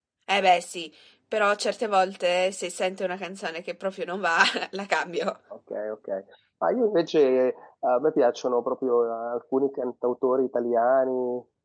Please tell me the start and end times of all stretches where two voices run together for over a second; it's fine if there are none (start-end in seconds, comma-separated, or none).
none